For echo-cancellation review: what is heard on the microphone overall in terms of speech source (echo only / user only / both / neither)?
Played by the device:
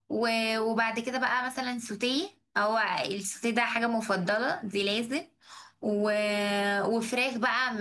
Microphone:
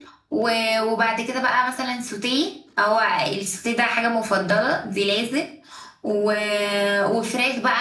echo only